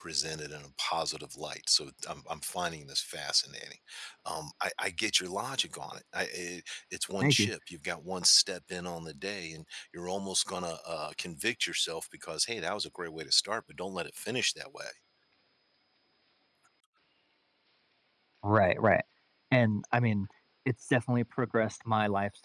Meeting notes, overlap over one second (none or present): none